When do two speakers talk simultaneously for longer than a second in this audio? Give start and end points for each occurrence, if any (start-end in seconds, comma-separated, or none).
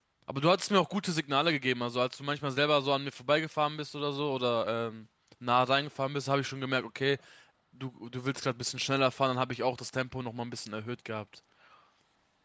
none